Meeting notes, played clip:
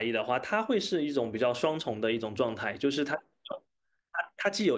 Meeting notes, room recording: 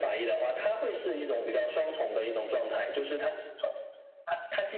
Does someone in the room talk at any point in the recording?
No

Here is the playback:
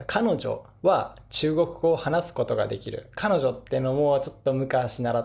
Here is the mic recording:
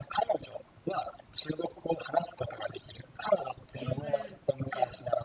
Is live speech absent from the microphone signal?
No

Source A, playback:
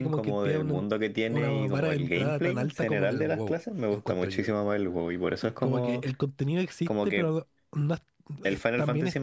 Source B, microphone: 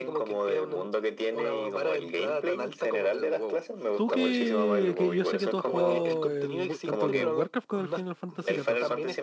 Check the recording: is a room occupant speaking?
Yes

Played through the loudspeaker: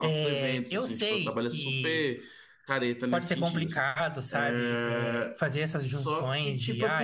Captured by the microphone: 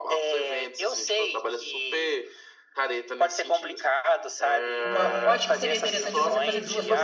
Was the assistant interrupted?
Yes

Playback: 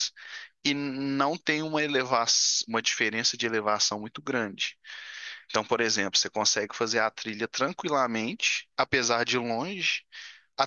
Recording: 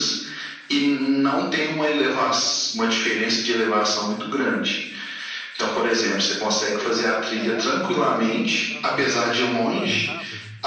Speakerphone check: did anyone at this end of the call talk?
Yes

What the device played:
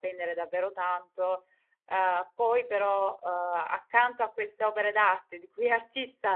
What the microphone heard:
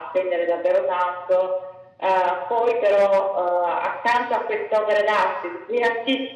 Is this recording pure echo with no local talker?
Yes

